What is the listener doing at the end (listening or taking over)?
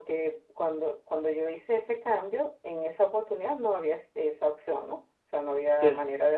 listening